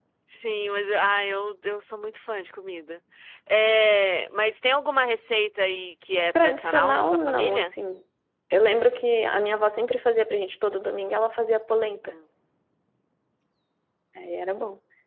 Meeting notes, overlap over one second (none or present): present